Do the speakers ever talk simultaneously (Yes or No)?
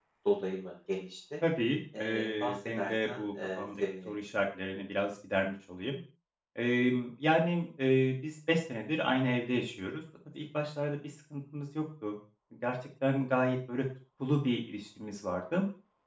Yes